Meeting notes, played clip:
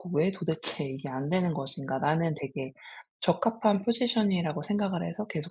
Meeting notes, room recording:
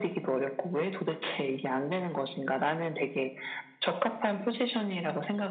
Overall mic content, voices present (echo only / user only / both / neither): echo only